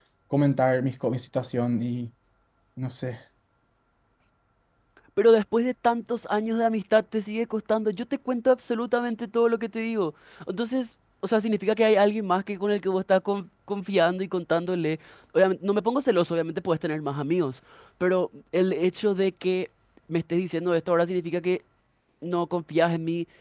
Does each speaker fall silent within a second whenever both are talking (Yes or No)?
Yes